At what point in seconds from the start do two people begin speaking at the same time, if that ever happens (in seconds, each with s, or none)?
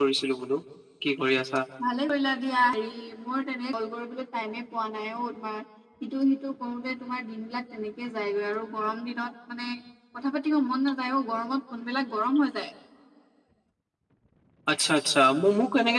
none